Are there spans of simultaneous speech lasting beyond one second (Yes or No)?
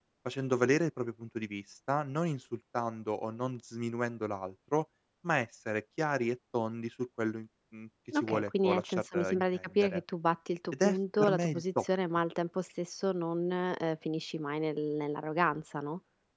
Yes